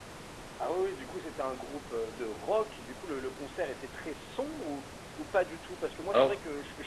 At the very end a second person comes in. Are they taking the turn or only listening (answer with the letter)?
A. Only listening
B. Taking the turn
A